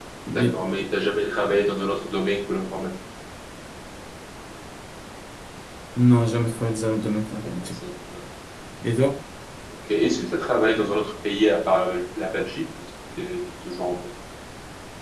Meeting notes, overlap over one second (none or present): none